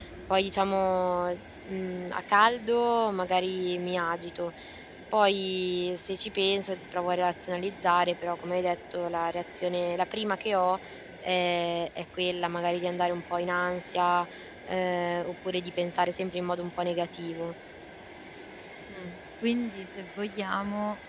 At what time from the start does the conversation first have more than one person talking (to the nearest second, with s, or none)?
none